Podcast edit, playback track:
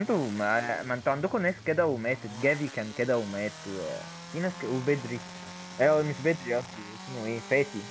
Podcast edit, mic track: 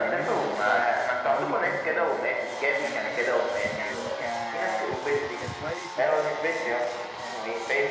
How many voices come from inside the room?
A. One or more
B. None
A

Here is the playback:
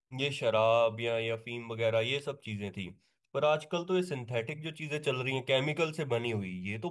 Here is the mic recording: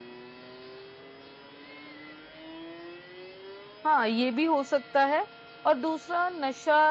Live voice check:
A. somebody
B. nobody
A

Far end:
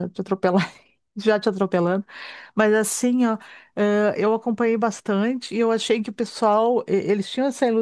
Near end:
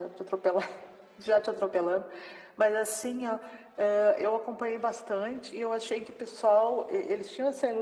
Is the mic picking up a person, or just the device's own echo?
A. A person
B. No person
B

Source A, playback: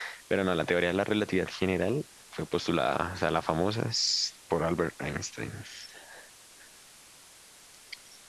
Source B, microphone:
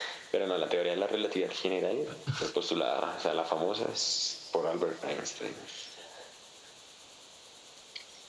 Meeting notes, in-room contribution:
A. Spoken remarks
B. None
A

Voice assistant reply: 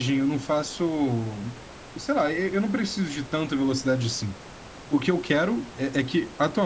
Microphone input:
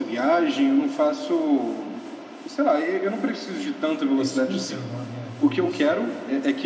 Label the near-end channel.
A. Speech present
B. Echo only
A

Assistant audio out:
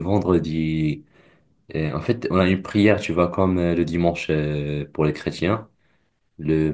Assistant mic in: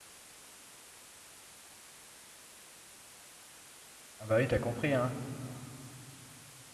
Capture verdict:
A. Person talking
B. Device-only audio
A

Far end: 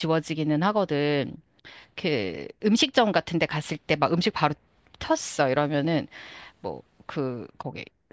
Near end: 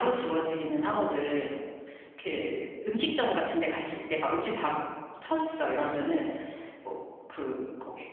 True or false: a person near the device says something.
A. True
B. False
B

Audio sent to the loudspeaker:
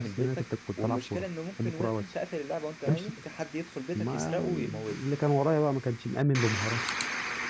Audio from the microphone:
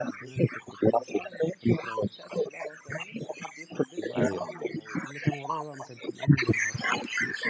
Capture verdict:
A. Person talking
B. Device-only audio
A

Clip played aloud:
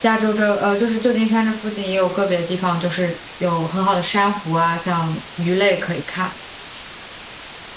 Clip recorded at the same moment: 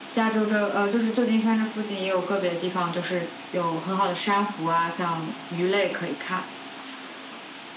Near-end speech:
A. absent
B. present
A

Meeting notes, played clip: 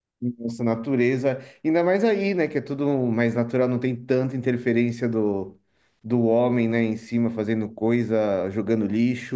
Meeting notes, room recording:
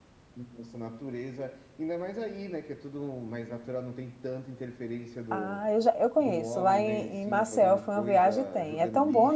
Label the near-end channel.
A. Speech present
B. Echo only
A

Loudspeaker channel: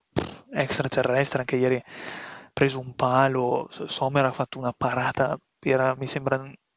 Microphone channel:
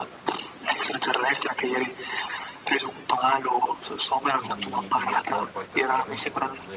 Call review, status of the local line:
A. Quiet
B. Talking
B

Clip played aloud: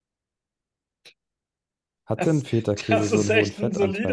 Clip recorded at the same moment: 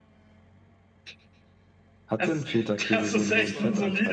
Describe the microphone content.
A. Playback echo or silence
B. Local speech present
B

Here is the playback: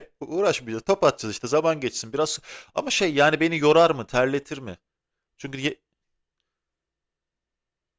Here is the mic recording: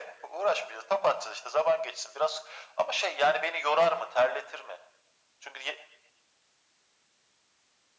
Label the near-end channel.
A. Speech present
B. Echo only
B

